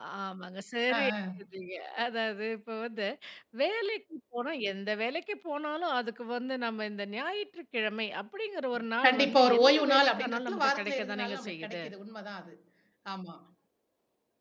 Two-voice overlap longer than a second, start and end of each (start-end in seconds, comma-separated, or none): 9.0-11.8